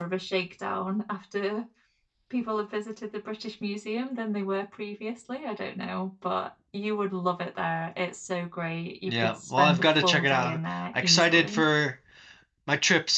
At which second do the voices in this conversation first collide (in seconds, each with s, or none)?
9.1 s